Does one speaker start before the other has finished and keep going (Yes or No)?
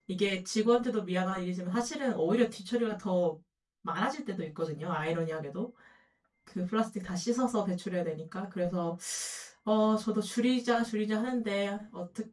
No